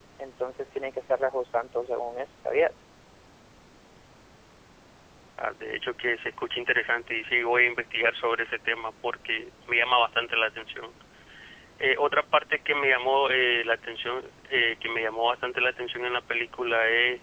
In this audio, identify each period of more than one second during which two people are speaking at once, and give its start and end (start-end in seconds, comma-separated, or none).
none